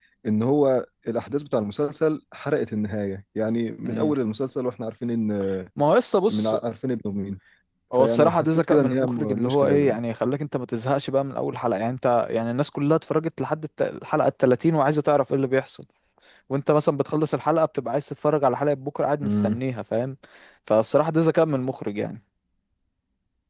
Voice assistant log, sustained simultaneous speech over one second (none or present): present